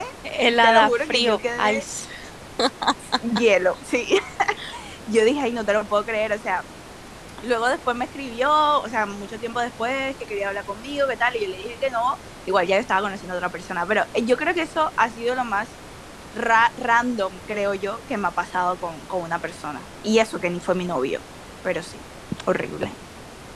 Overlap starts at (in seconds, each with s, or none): 0.6 s